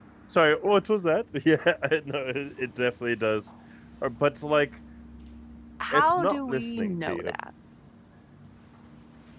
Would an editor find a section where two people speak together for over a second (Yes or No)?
Yes